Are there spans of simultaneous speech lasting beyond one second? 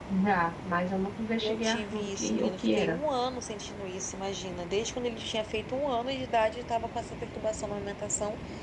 Yes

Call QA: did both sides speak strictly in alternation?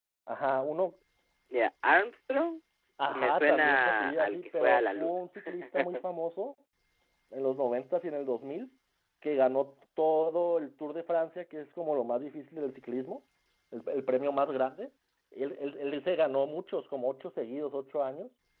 No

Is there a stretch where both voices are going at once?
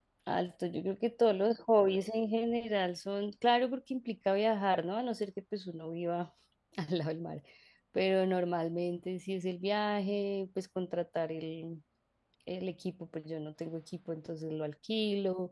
No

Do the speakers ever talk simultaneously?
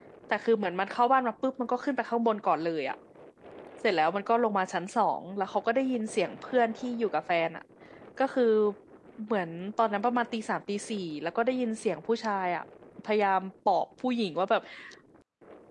No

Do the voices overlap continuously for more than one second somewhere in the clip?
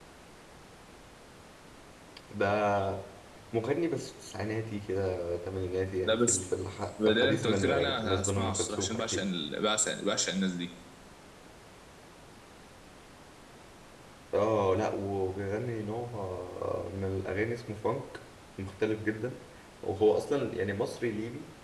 Yes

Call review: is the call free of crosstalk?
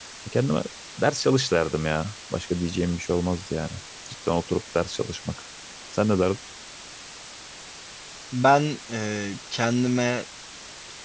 Yes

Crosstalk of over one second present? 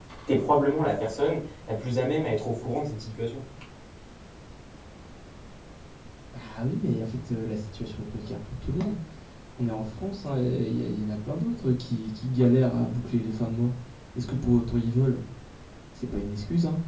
No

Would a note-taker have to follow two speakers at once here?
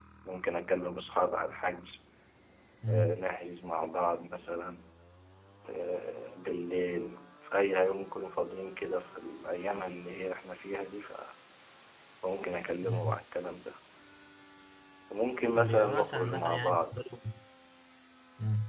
Yes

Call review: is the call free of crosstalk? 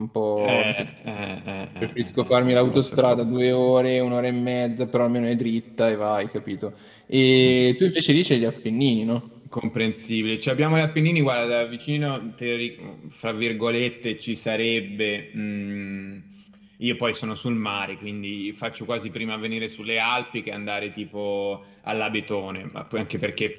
No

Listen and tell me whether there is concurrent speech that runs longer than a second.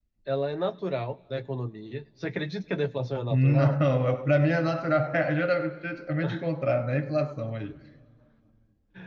No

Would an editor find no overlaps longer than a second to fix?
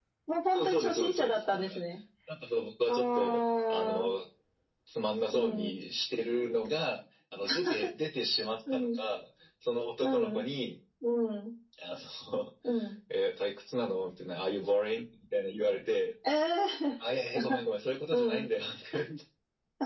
No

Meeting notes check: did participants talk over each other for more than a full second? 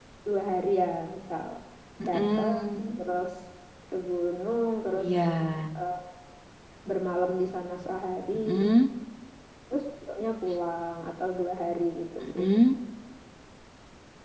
No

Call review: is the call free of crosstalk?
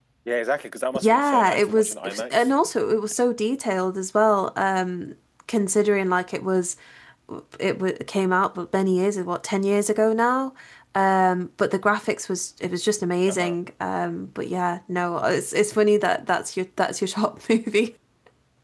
No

